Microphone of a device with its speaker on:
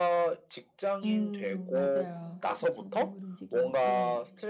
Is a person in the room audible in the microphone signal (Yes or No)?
Yes